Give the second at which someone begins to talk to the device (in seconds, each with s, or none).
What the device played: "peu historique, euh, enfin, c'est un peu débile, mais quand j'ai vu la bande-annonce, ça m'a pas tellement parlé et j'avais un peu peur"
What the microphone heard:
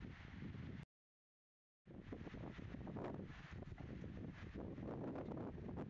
none